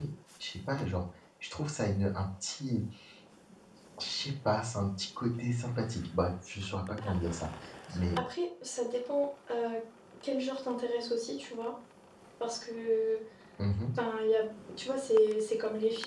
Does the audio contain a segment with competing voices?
No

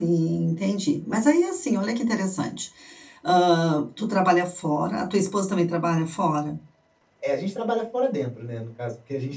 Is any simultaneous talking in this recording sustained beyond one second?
No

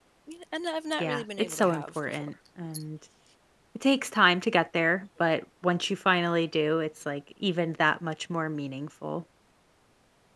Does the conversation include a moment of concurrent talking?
Yes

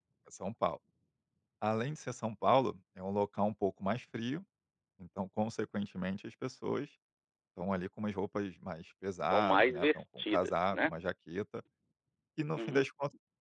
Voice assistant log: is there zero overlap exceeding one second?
No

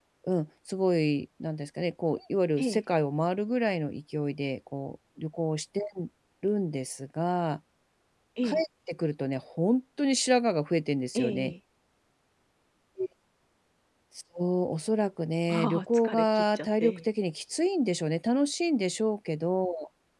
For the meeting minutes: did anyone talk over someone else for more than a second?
Yes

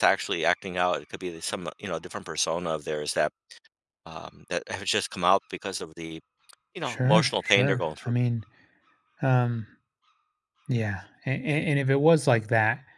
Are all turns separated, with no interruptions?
No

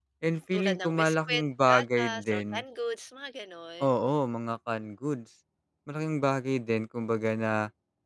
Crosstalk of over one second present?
Yes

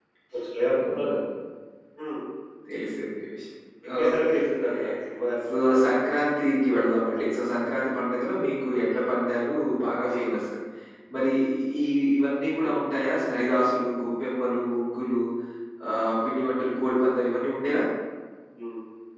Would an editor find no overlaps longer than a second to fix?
Yes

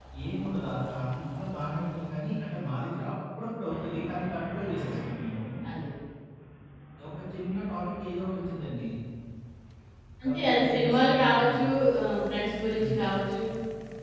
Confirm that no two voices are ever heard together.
No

